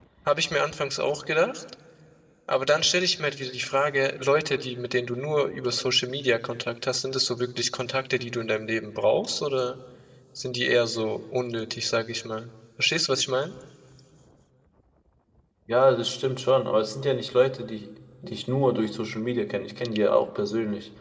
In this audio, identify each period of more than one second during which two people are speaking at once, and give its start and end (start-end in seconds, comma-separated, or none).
none